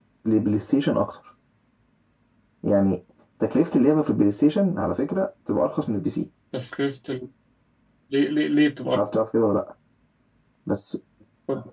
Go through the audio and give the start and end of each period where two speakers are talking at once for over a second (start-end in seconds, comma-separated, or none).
none